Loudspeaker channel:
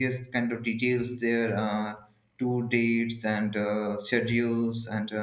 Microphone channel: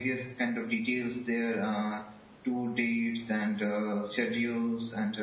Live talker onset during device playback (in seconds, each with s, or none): none